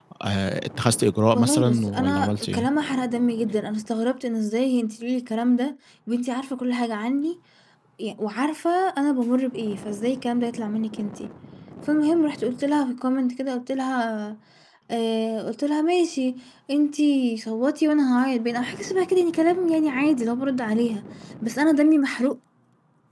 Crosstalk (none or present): present